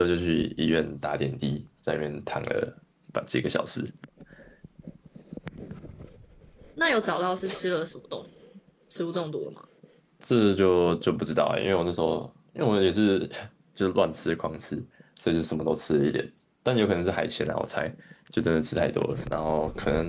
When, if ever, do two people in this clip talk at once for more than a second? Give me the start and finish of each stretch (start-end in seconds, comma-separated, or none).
none